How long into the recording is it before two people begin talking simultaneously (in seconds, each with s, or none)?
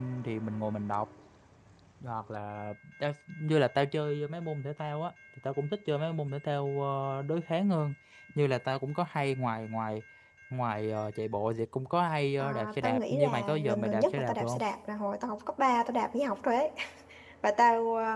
12.4 s